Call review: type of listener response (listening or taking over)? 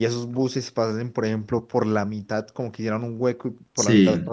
listening